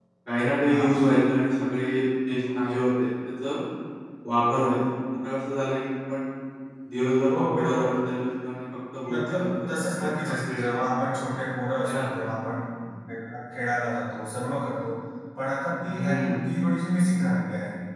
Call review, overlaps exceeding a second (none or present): present